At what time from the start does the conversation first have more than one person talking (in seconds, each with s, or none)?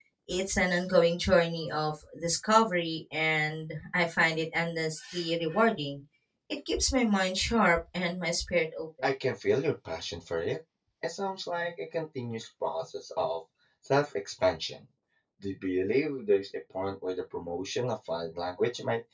none